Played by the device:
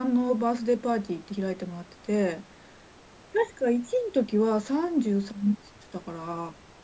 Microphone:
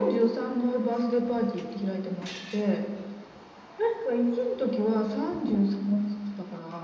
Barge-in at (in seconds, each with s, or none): none